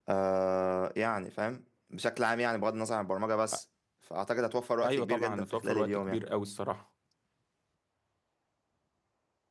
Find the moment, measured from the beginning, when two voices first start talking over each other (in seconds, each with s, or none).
4.8 s